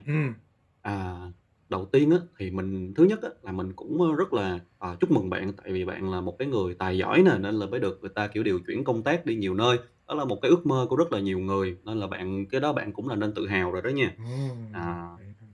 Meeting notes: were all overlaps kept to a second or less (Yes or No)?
Yes